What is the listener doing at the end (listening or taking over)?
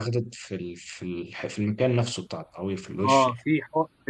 taking over